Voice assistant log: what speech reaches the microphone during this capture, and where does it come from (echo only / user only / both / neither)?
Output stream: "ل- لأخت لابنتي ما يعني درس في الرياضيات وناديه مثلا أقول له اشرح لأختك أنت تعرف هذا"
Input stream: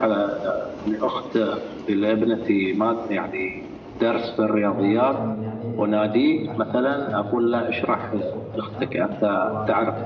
both